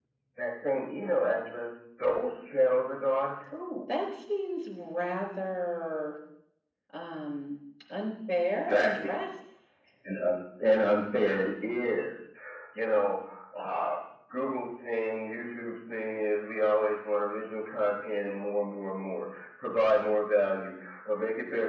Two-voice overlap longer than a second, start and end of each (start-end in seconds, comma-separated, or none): none